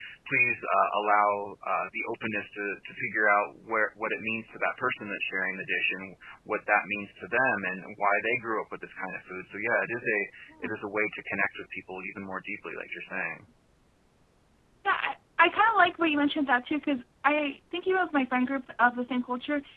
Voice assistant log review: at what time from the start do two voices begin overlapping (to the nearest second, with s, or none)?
none